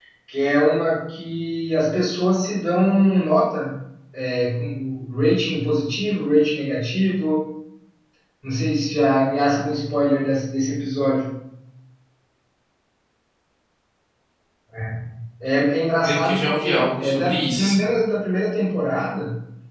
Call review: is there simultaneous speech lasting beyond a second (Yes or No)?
Yes